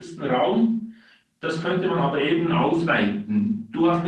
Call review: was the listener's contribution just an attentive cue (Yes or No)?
Yes